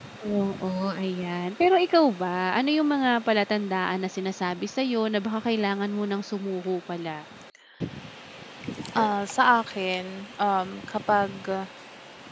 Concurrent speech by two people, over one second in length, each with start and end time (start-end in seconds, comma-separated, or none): none